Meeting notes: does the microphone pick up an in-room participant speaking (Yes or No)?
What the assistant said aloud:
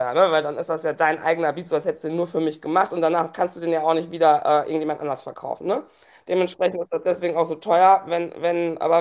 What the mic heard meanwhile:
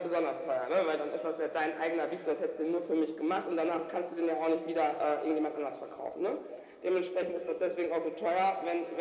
No